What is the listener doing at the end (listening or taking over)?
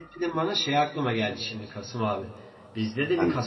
listening